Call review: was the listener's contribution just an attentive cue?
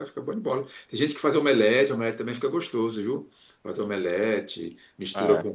Yes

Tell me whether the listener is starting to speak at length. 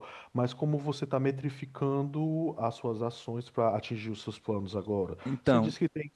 No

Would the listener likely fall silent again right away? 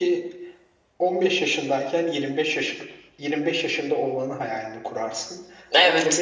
Yes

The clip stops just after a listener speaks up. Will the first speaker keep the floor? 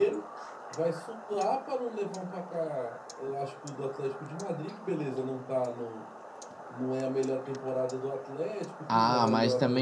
No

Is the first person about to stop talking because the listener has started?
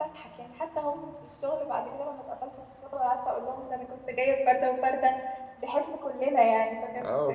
Yes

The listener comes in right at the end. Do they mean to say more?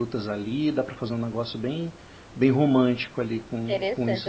Yes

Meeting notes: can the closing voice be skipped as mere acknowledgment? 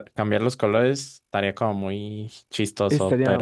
No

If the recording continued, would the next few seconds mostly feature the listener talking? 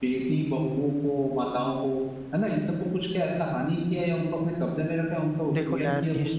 Yes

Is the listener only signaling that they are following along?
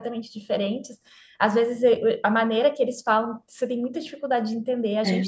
Yes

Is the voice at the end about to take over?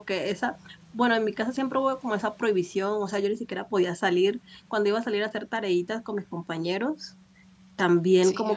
No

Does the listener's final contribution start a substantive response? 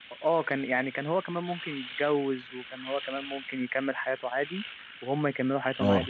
No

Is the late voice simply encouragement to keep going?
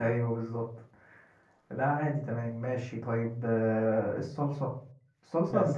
Yes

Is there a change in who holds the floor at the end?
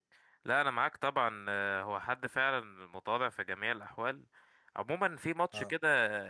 No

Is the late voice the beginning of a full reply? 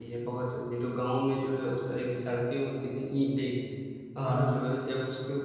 No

